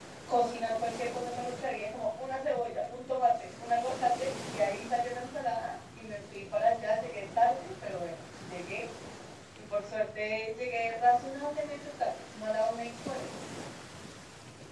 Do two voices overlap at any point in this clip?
No

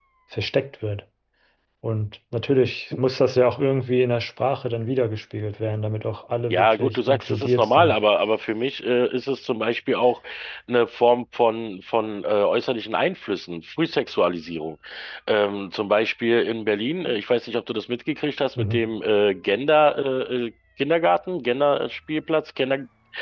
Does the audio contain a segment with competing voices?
Yes, from 6.5 s

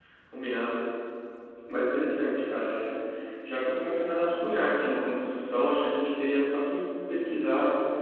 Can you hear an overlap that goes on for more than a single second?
No

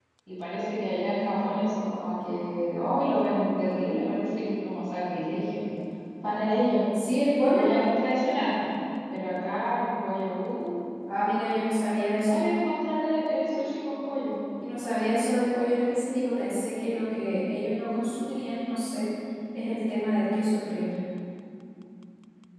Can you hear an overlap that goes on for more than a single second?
No

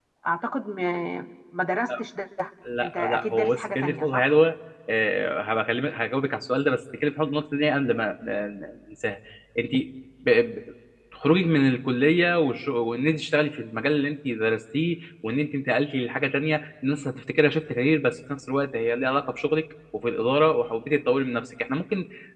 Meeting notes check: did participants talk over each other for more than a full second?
Yes, from 2.8 s

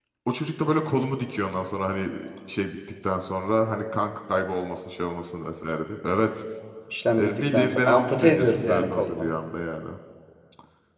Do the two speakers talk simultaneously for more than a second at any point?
Yes, from 7.2 s

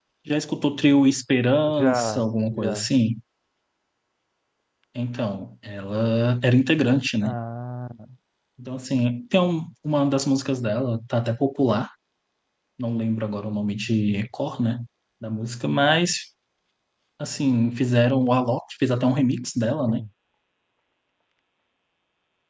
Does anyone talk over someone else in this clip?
Yes, from 1.7 s

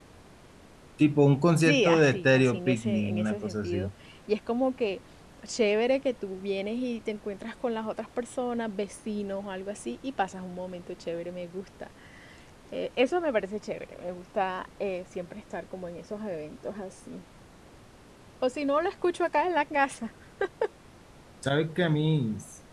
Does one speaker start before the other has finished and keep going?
Yes, from 1.6 s

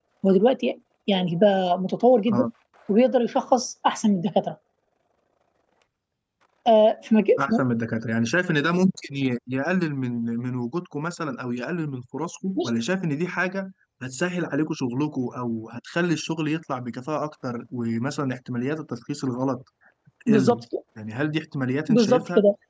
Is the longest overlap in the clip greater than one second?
No

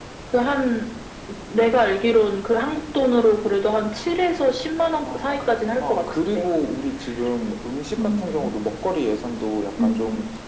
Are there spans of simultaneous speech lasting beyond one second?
Yes, from 5.2 s

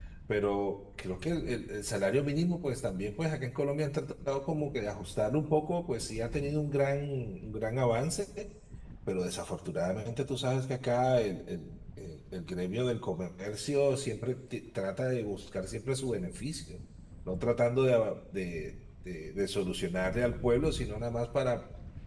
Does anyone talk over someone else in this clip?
No

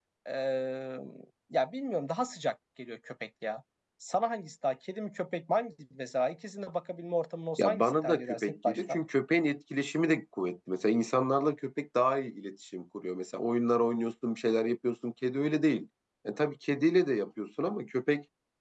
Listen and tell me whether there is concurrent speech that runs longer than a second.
Yes, from 7.6 s

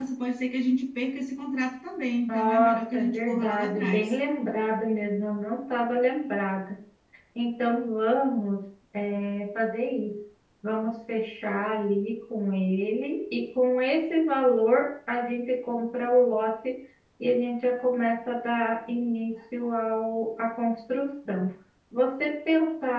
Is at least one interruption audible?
Yes, from 2.3 s

